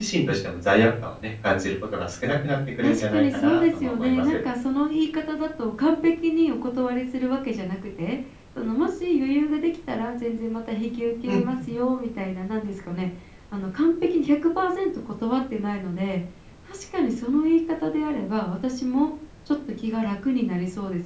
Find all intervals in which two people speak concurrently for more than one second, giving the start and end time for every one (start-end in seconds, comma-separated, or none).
2.8-4.2